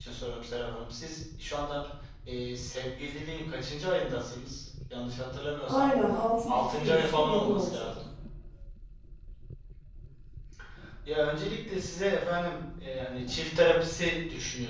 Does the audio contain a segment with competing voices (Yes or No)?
Yes